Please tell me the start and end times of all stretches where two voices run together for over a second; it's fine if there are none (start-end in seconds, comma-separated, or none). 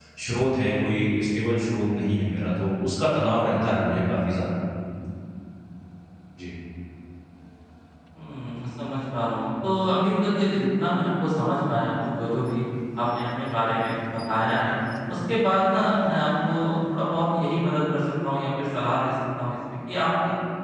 none